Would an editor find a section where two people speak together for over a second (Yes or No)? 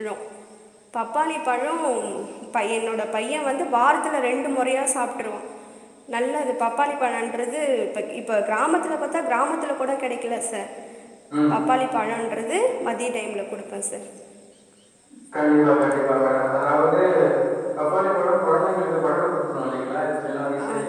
No